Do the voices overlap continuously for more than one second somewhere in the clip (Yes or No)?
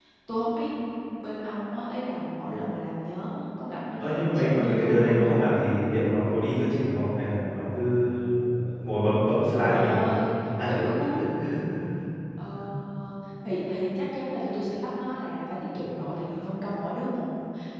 Yes